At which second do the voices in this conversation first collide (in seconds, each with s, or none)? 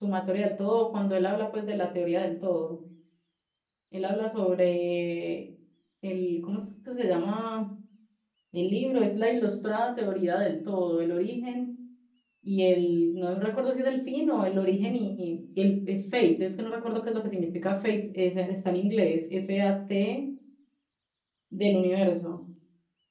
none